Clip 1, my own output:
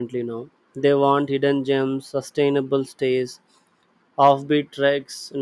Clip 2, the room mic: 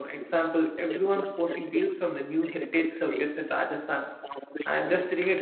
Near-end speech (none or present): present